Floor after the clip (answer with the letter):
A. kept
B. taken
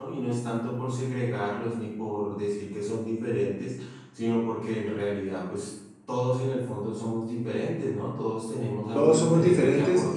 B